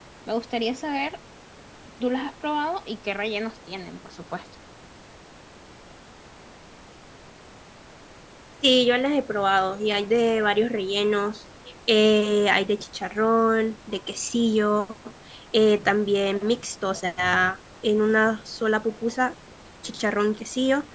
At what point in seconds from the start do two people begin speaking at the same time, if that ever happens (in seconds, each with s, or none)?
none